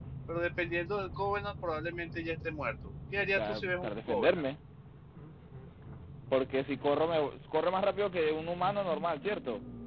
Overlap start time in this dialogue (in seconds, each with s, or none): 3.1 s